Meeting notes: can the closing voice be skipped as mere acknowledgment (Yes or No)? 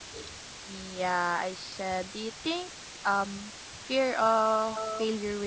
Yes